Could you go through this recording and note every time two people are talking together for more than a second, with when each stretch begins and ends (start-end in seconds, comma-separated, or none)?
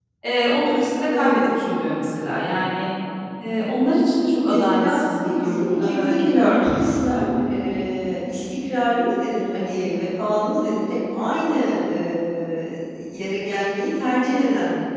4.4-6.7